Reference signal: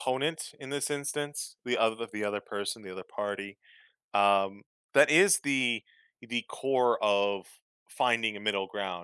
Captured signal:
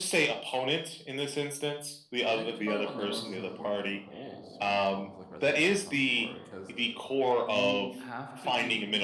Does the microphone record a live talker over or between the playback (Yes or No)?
Yes